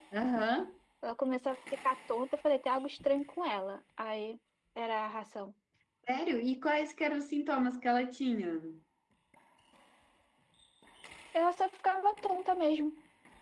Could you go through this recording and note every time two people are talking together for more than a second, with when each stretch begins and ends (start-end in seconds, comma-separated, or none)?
none